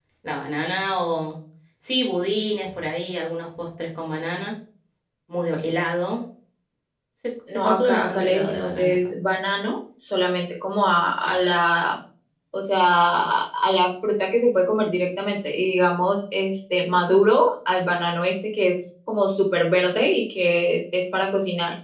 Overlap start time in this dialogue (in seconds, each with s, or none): 7.5 s